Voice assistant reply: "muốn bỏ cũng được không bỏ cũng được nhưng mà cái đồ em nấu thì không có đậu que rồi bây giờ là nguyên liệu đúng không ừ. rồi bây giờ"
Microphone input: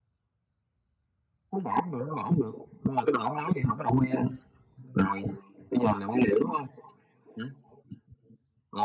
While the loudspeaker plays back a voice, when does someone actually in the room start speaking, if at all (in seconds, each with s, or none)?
none